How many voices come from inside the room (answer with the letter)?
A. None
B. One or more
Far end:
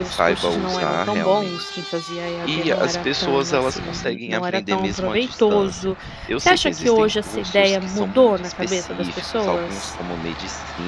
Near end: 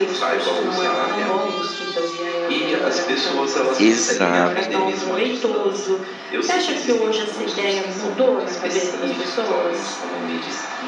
B